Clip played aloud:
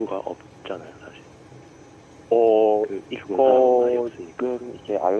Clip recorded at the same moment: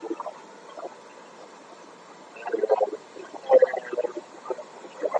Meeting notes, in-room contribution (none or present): none